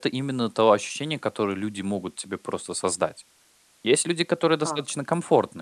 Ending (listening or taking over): listening